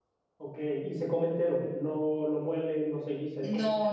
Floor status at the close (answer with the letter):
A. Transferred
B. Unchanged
A